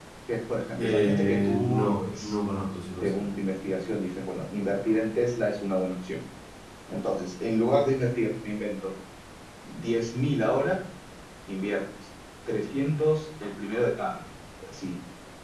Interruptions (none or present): present